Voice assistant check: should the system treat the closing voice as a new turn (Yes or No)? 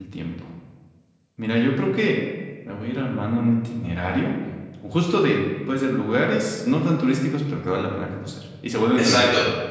Yes